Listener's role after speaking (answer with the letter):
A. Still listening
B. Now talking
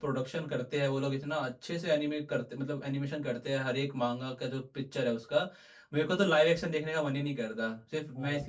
B